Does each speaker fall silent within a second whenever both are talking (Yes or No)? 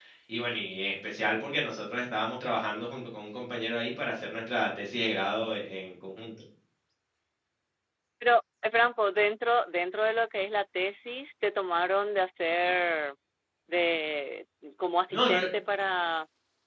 Yes